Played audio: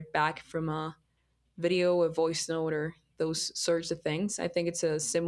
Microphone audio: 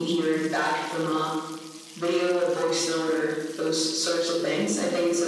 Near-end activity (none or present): none